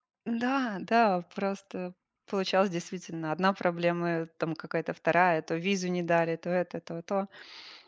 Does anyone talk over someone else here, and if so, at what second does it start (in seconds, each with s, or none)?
none